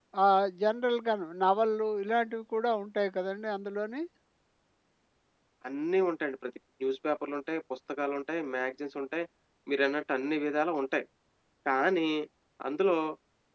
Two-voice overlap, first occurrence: none

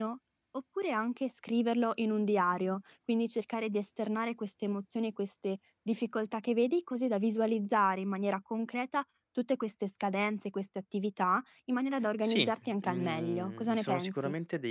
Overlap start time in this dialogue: 12 s

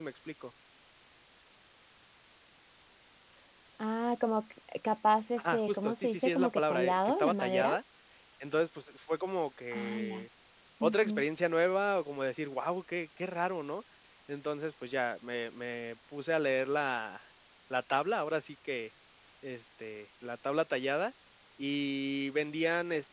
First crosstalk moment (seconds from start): 5 s

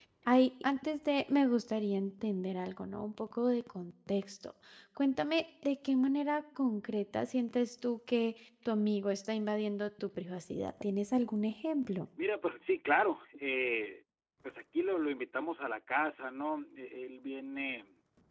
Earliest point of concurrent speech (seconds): none

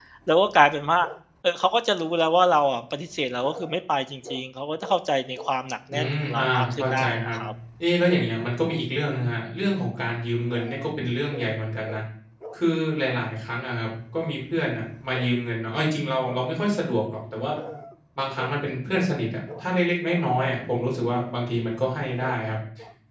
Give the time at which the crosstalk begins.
6 s

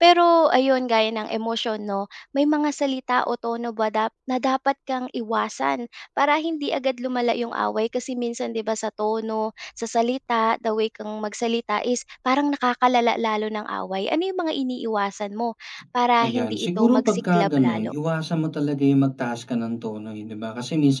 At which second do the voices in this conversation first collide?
16 s

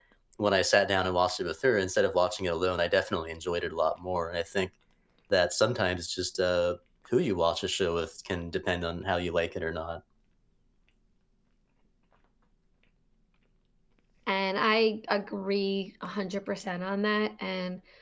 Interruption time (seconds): none

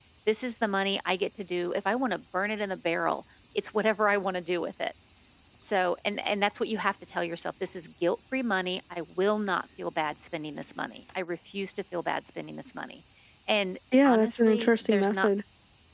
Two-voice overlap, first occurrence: 14 s

